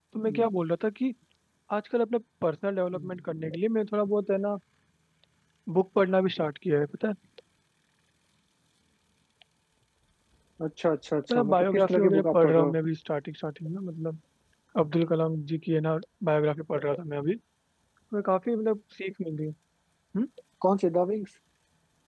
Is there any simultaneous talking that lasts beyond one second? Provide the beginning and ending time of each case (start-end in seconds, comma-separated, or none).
11.3-12.7